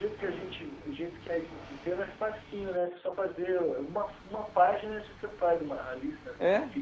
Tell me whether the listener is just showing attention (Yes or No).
No